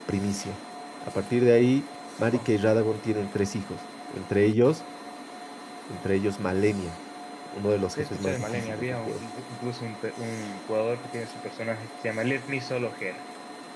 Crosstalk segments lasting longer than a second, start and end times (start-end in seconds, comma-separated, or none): 8.0-9.2